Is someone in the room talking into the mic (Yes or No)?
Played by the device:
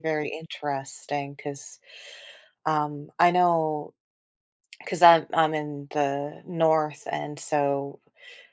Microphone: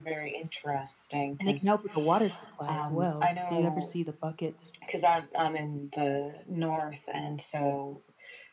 Yes